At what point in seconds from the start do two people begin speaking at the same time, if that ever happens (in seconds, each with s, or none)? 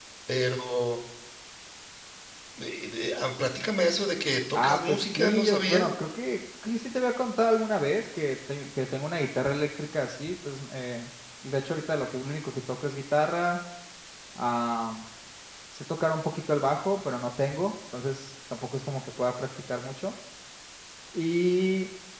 4.5 s